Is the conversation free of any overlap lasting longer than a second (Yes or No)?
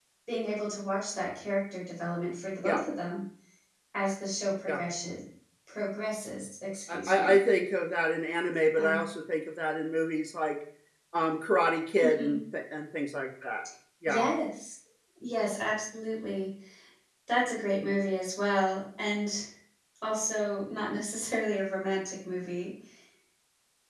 Yes